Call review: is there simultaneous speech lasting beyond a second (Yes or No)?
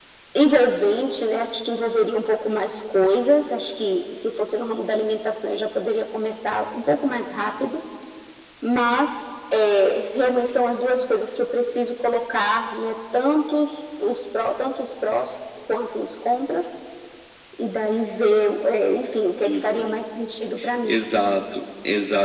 No